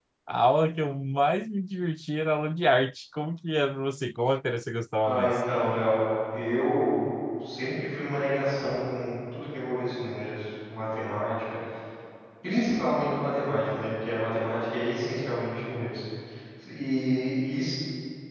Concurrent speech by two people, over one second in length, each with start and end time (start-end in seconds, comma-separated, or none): none